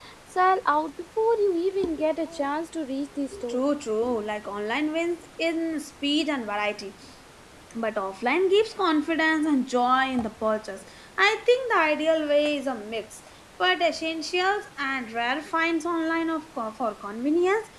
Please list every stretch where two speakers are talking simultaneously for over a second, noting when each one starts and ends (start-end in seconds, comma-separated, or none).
none